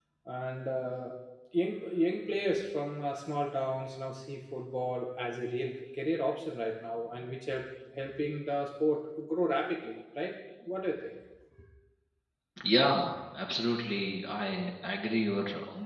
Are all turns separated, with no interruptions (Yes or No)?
Yes